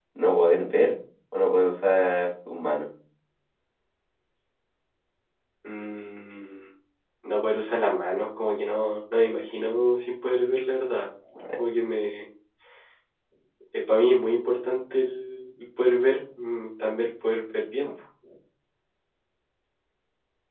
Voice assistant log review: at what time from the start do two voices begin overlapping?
none

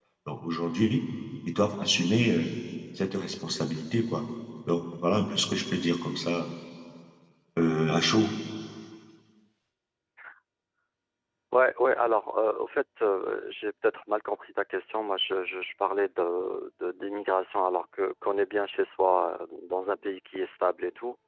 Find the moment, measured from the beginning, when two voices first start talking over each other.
none

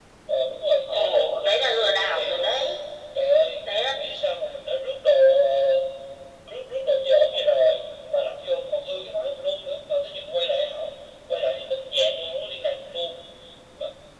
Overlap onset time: 0.9 s

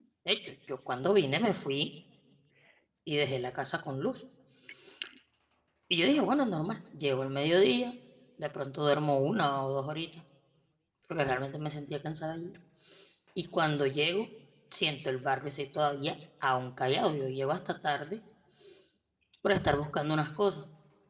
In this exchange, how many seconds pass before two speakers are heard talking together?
none

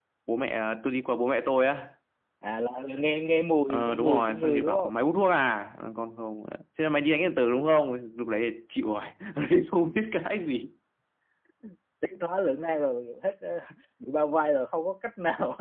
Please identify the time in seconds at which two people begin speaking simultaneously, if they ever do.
3.7 s

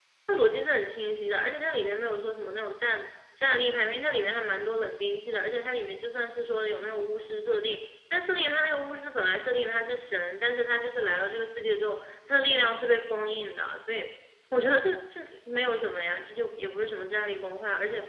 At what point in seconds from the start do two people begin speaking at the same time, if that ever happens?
none

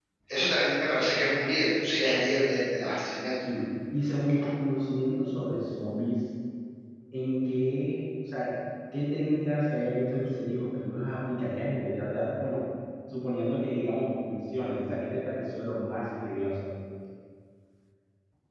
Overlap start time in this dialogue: none

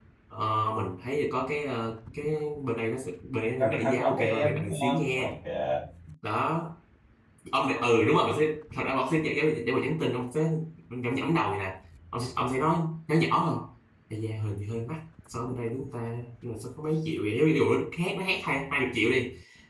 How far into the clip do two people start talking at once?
3.6 s

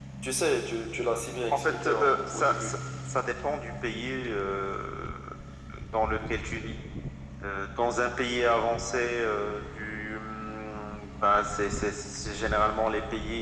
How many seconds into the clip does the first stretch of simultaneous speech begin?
1.5 s

